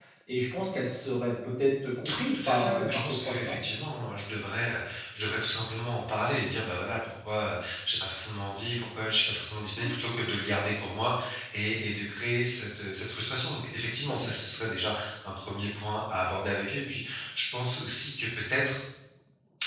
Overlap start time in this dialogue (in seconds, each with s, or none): 2.3 s